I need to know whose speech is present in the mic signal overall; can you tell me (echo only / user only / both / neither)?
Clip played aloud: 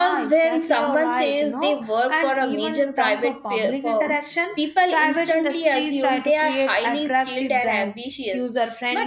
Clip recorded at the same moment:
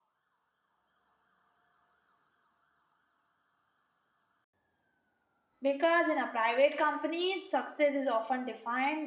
user only